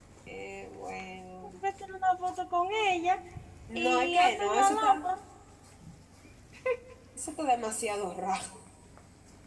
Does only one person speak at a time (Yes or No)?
No